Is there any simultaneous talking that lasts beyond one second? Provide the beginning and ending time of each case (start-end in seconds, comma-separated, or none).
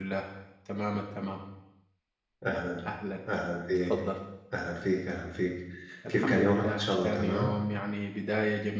6.1-7.5